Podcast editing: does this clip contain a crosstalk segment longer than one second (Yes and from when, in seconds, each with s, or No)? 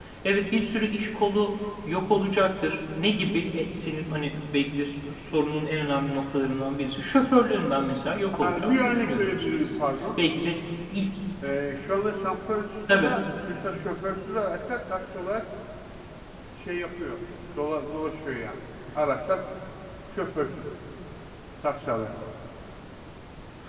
Yes, from 8.4 s